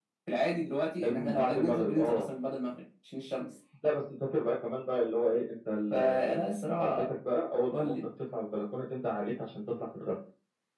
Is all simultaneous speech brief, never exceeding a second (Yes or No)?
No